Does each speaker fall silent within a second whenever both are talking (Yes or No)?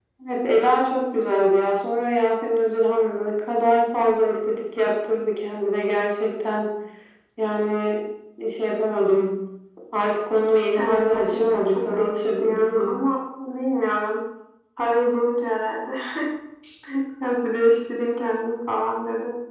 No